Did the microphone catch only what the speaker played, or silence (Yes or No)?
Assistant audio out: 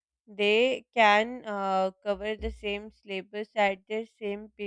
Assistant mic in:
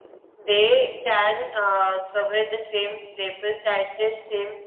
Yes